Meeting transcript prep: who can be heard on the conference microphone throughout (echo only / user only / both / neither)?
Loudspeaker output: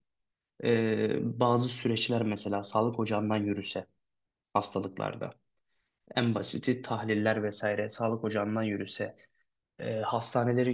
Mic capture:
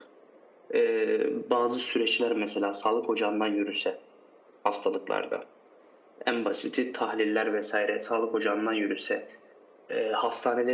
echo only